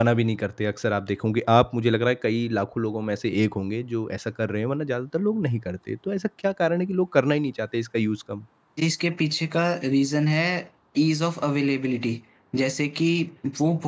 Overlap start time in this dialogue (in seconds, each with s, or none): none